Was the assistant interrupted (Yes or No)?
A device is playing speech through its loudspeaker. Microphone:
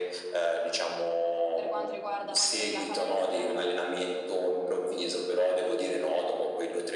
Yes